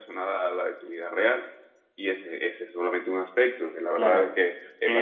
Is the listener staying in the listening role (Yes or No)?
No